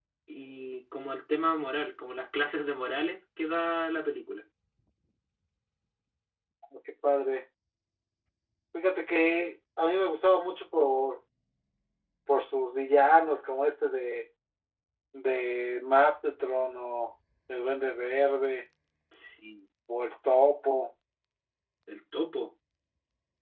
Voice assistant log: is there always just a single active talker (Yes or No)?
Yes